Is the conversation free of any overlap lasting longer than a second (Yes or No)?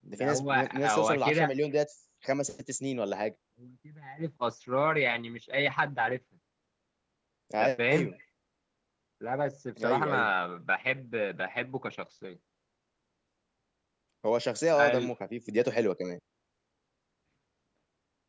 No